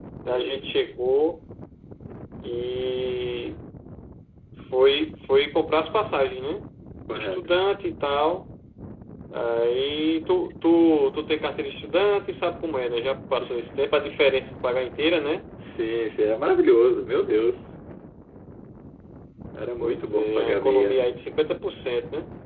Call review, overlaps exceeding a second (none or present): present